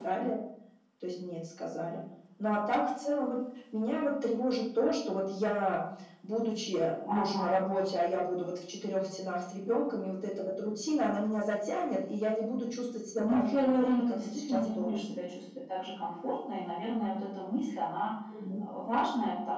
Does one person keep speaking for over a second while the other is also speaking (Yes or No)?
Yes